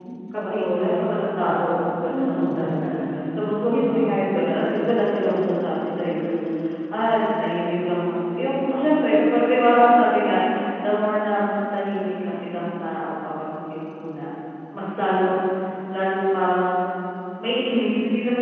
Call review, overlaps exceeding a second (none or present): present